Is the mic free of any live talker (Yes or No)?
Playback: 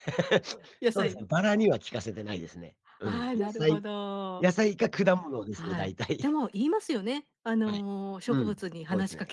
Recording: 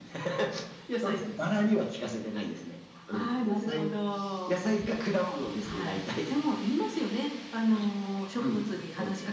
Yes